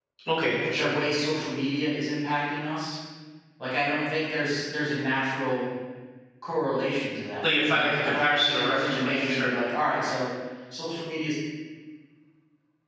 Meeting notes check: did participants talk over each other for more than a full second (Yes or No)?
Yes